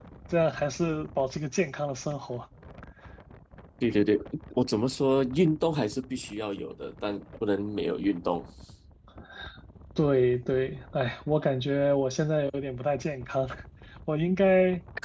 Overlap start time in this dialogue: none

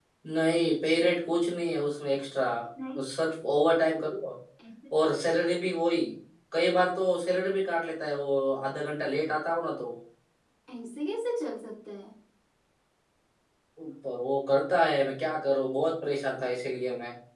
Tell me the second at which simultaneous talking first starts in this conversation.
none

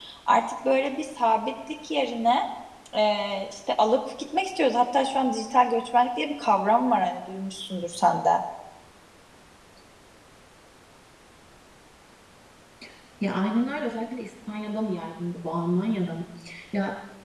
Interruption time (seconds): none

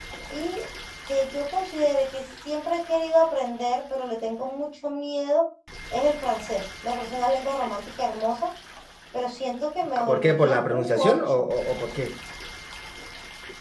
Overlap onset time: 10.0 s

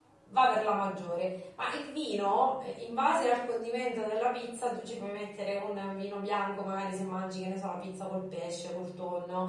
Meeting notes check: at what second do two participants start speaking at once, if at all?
none

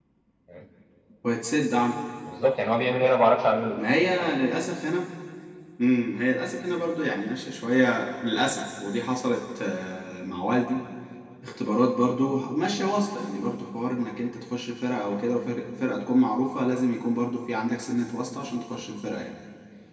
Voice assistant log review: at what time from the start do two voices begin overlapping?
none

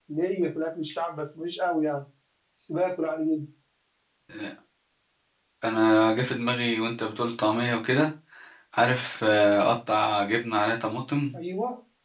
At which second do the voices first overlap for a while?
none

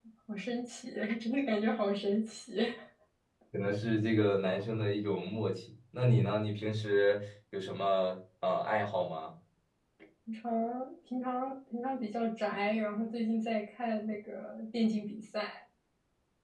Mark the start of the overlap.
none

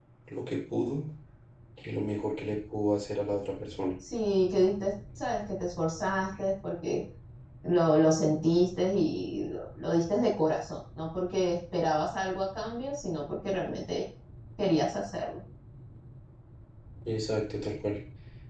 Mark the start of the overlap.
none

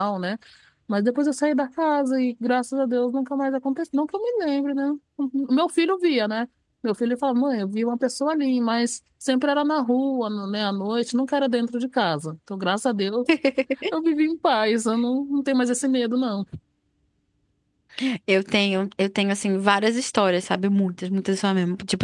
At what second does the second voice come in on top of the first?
none

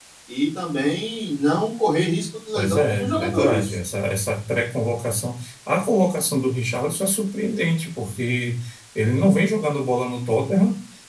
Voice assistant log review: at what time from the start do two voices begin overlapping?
2.6 s

